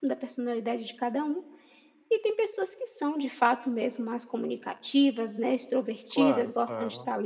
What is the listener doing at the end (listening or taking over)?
listening